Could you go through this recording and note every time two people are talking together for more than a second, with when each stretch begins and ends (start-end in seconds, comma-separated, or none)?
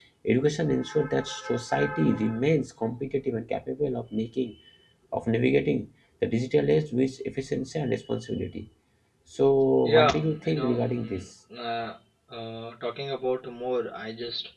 9.9-11.2